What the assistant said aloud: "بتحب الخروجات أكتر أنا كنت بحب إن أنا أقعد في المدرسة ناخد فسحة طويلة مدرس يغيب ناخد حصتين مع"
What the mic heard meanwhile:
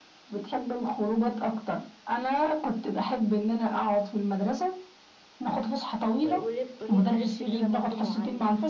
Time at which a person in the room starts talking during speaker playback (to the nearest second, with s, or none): 6 s